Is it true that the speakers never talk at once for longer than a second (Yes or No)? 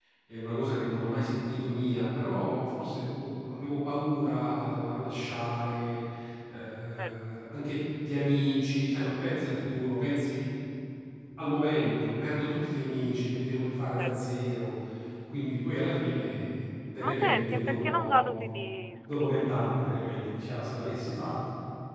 No